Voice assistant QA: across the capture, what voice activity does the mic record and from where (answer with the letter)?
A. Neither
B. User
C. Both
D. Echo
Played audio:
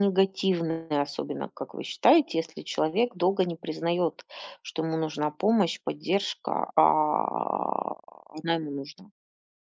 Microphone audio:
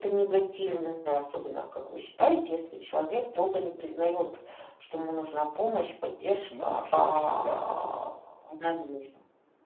C